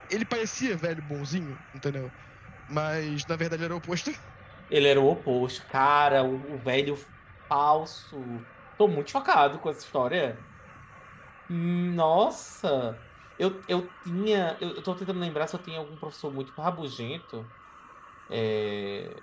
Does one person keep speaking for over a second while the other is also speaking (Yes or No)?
No